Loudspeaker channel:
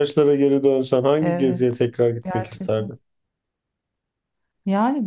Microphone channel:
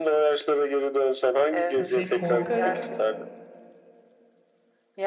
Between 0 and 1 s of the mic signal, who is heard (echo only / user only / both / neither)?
echo only